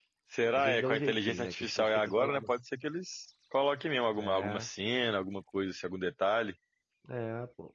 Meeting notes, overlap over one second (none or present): present